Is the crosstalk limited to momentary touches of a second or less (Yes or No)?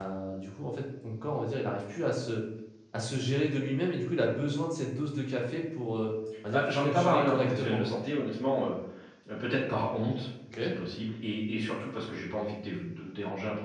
No